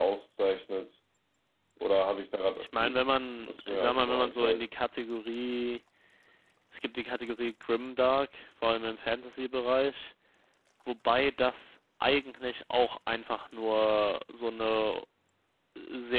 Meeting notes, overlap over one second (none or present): present